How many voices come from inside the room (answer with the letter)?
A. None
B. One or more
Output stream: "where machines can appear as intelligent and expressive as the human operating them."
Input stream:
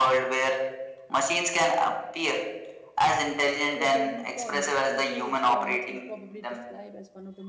B